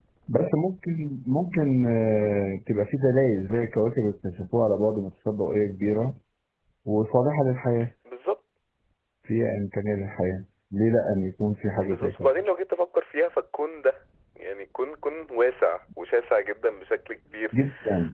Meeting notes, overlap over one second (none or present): none